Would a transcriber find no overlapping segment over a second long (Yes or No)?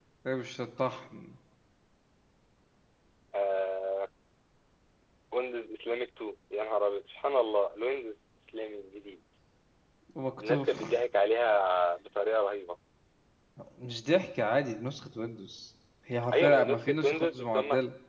No